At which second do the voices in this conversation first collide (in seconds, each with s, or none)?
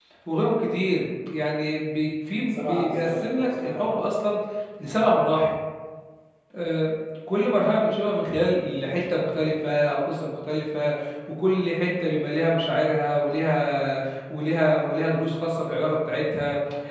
2.5 s